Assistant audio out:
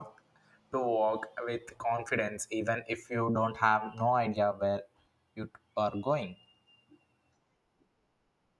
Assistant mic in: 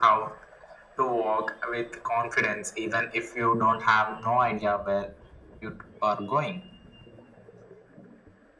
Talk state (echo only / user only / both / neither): echo only